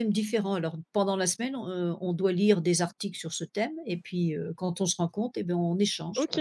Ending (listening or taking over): taking over